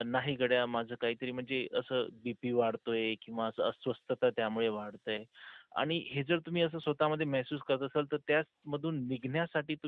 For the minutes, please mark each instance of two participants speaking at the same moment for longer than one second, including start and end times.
none

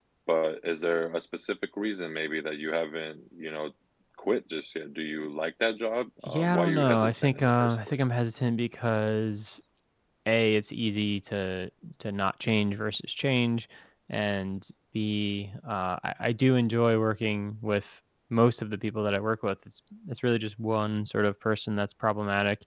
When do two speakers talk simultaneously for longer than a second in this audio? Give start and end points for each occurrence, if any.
6.3-8.0

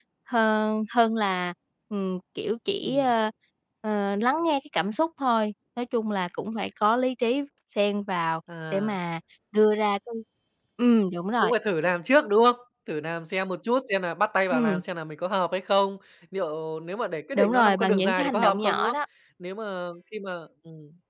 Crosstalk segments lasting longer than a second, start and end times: 17.4-18.9

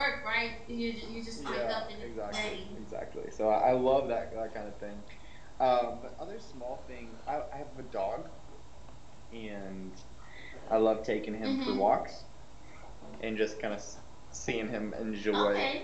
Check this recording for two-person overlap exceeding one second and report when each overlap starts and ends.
1.4-2.8

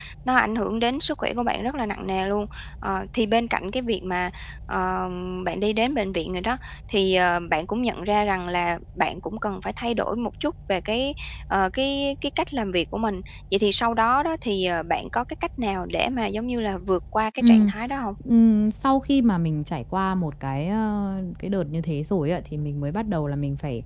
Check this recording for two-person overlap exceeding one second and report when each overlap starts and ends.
none

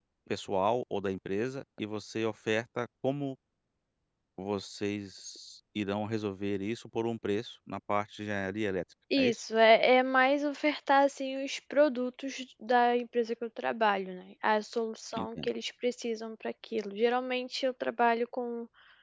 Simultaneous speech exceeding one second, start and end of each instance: none

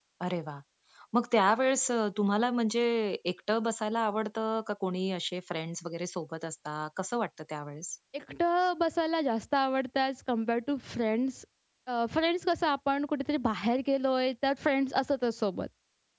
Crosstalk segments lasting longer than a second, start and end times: none

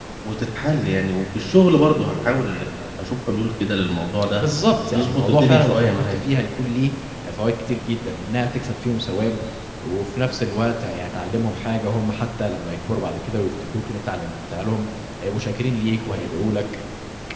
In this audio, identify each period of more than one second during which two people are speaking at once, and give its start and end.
4.9-6.2

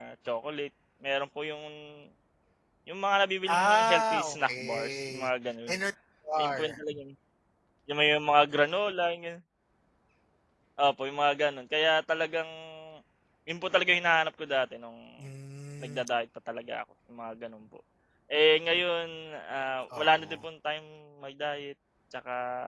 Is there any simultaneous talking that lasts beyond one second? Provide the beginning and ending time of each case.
3.5-5.3

